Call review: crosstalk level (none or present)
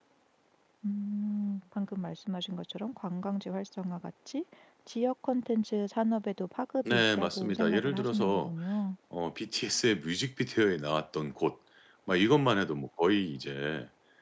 present